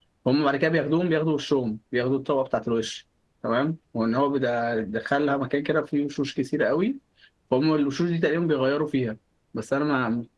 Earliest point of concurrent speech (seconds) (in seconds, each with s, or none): none